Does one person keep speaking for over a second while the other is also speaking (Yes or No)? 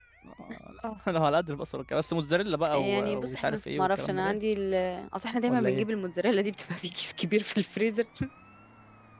Yes